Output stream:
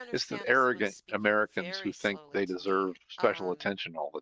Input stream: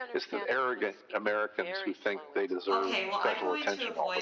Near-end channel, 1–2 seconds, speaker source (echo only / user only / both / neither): echo only